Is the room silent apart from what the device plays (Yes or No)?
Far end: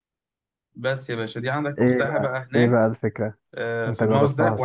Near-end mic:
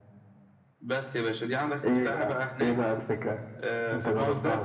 Yes